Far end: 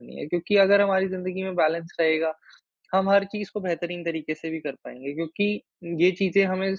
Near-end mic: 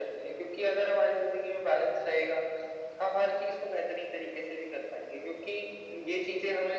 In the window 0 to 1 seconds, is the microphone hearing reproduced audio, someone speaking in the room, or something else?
echo only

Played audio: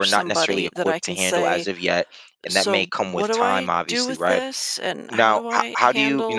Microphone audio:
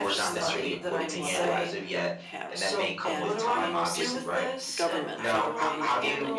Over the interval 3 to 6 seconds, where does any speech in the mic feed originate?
both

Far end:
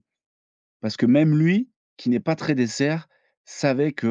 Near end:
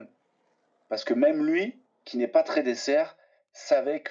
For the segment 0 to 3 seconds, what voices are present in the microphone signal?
echo only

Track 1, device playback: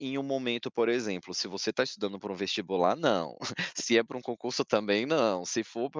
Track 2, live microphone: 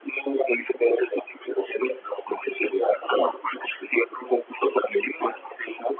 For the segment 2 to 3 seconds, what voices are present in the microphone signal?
echo only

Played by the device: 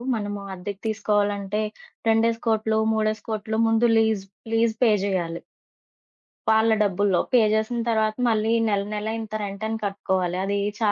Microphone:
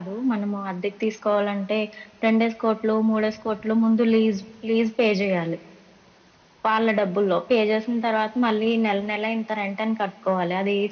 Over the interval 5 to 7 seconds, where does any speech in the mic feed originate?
echo only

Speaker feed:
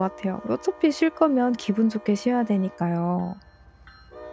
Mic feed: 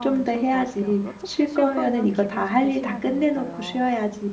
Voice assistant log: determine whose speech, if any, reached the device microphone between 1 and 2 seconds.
both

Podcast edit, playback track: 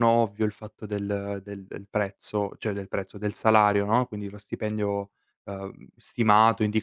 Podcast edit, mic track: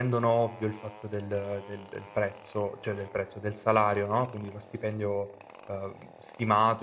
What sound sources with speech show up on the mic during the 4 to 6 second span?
echo only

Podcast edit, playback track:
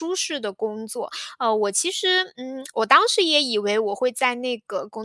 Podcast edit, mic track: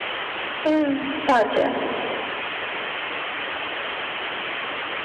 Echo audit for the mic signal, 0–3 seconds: user only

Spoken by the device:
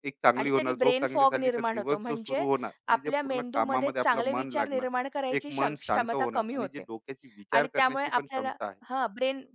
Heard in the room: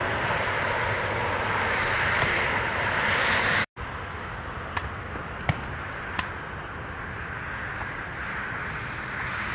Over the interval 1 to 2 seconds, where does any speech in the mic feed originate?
neither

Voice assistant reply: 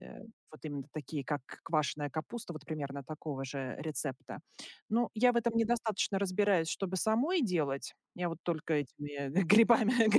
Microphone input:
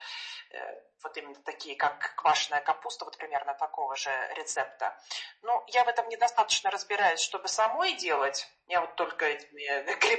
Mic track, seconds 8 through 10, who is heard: echo only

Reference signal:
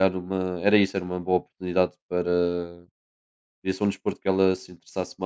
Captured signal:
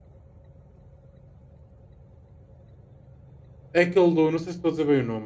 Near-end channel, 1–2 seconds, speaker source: neither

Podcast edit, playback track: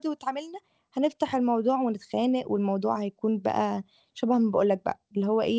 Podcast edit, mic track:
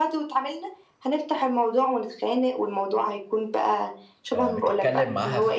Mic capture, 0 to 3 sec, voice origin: echo only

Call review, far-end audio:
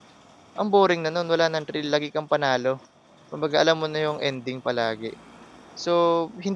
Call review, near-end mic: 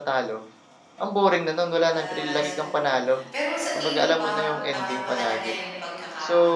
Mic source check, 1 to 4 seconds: both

